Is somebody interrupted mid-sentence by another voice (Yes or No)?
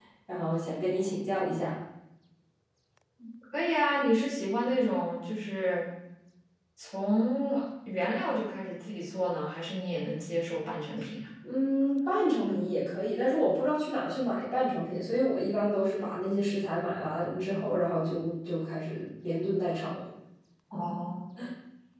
No